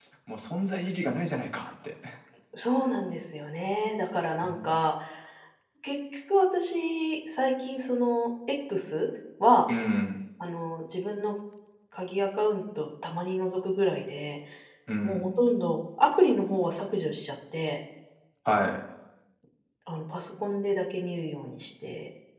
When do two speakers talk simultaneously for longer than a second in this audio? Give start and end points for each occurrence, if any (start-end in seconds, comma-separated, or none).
none